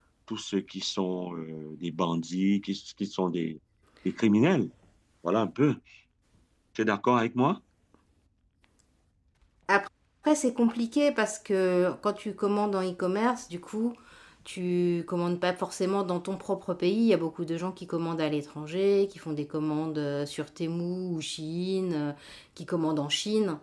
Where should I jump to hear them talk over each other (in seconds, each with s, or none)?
none